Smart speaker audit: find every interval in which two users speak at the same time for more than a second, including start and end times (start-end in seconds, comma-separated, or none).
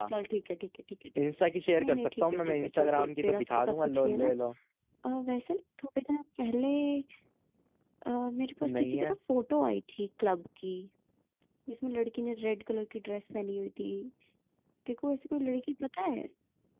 1.8-4.3